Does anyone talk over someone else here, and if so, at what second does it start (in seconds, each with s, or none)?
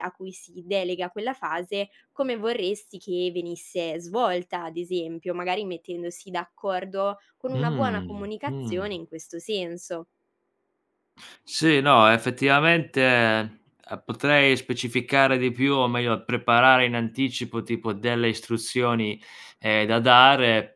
7.5 s